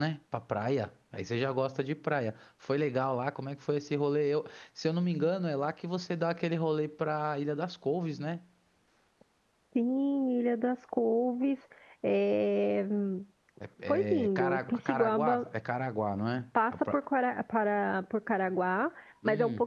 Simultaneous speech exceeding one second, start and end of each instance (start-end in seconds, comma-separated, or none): 13.9-15.5